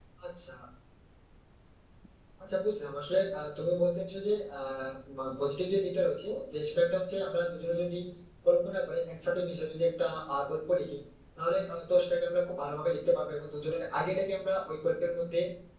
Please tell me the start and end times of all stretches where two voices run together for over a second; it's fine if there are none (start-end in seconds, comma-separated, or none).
none